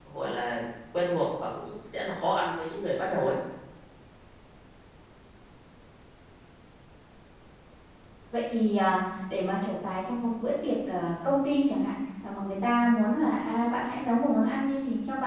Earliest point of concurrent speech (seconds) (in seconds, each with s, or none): none